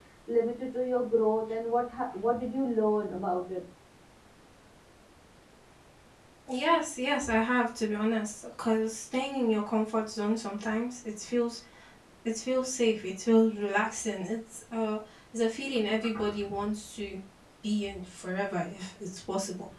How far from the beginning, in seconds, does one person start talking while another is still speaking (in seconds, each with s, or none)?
none